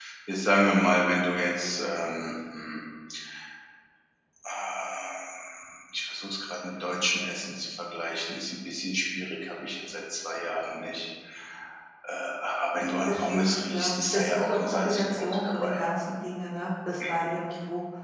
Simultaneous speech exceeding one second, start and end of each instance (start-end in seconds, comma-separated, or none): 13.1-15.8